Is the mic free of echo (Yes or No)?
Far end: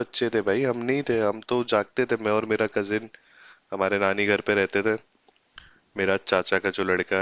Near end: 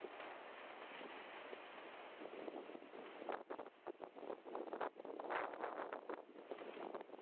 Yes